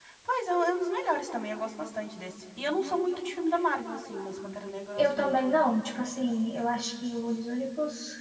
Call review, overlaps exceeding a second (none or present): none